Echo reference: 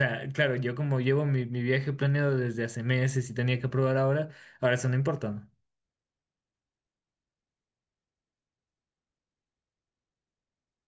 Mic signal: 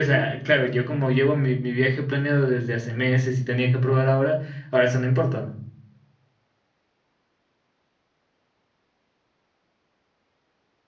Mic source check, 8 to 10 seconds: neither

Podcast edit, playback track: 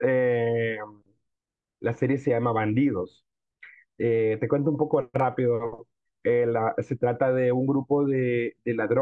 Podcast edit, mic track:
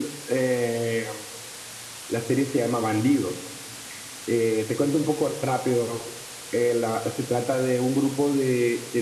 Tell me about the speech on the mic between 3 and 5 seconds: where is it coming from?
echo only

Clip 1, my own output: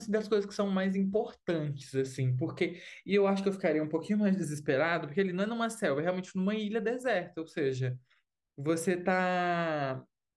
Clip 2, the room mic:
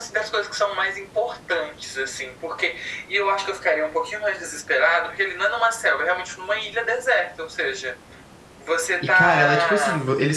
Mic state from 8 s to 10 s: both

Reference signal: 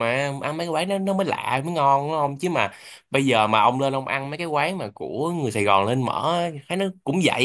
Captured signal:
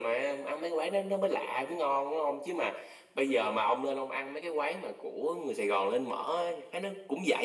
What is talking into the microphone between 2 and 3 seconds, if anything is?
echo only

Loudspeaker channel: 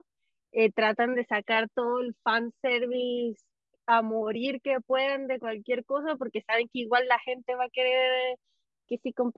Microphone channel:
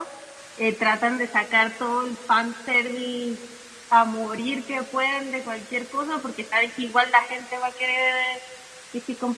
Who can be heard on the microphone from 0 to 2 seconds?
echo only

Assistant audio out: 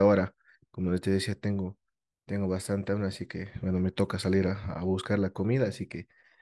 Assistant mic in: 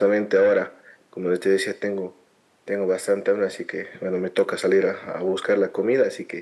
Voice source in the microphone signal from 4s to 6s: echo only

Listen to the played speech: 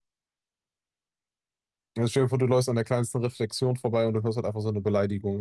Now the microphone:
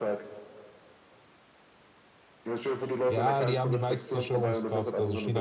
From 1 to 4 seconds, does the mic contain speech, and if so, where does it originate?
both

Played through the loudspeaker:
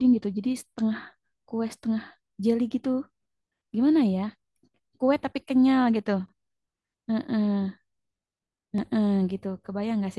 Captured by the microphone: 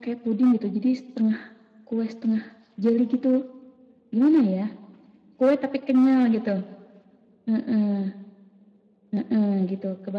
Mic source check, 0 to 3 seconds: echo only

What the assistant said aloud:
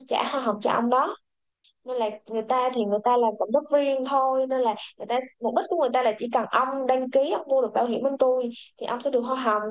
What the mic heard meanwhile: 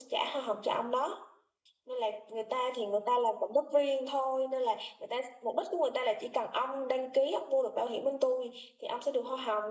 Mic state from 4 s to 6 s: echo only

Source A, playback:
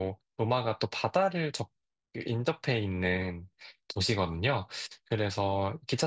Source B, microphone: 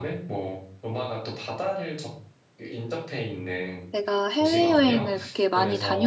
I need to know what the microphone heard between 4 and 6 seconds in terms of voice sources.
both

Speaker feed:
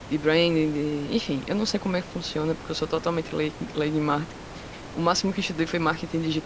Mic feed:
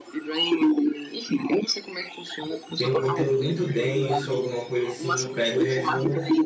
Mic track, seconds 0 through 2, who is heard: echo only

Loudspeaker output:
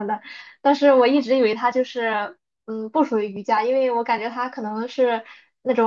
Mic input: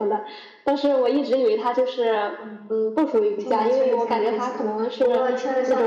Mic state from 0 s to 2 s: echo only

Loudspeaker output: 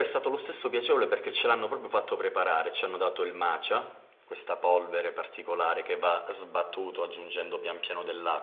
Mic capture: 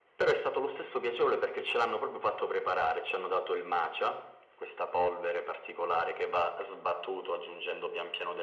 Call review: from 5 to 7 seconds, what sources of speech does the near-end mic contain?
echo only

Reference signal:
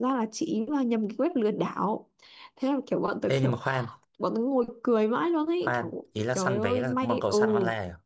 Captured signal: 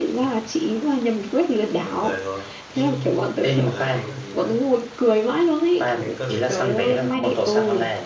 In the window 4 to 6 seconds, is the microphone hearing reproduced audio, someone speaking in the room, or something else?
both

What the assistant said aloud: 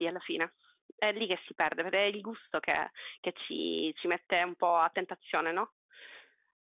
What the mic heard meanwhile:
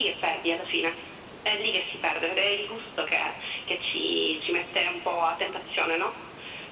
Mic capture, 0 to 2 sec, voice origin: echo only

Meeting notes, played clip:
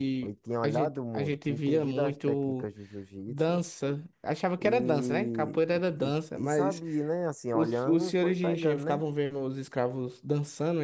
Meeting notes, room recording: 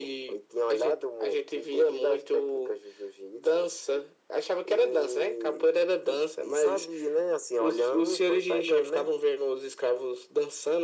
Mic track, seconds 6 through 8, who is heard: echo only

